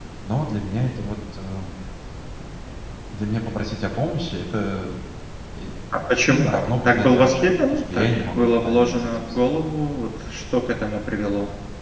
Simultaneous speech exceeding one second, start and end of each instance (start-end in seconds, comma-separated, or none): 6.4-9.5